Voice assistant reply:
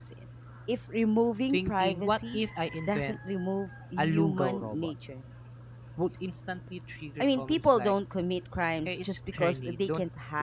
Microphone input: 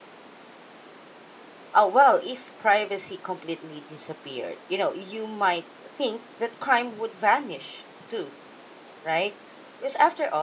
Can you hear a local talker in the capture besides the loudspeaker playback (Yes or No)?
Yes